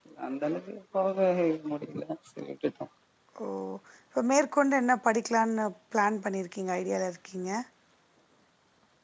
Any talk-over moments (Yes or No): No